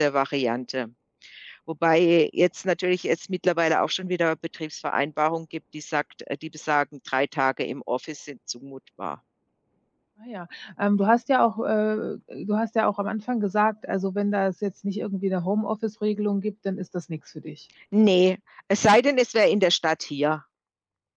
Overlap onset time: none

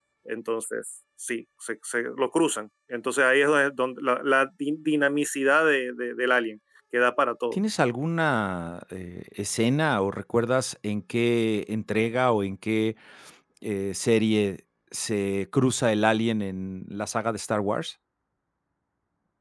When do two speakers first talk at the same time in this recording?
none

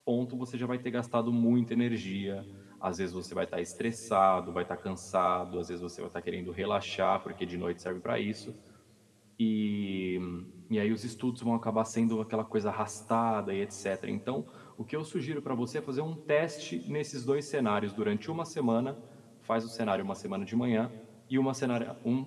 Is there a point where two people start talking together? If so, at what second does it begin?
none

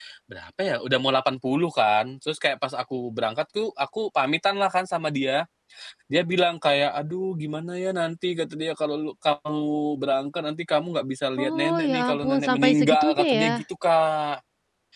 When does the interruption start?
11.4 s

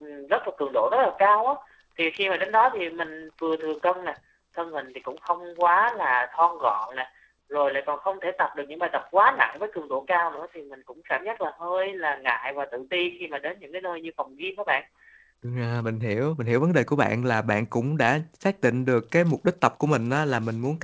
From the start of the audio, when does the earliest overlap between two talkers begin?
none

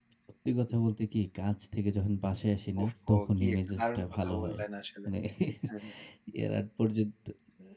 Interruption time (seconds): 2.8 s

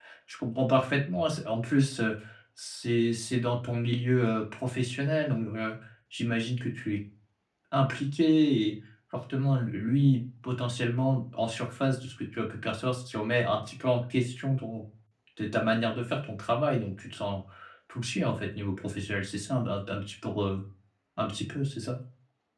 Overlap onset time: none

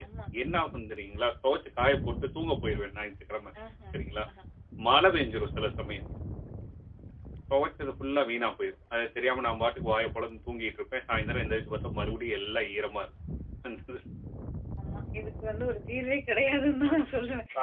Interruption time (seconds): none

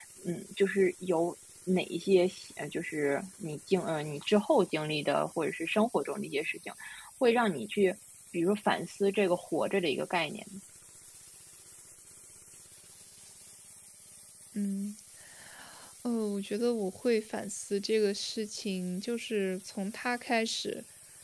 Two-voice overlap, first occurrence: none

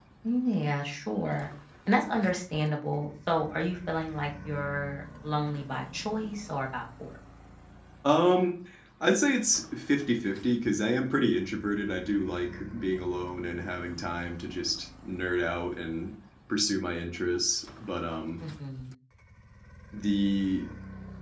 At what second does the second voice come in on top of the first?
none

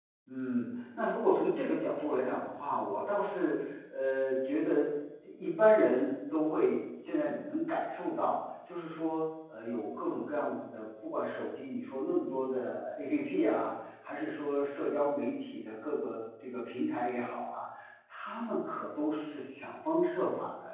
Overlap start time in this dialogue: none

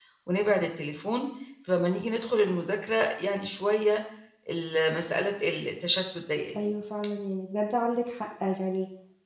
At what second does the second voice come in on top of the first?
none

